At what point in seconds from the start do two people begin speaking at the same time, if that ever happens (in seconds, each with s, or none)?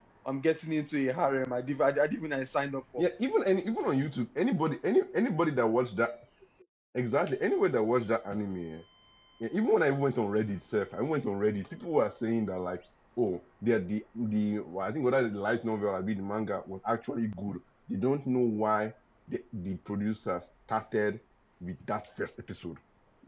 none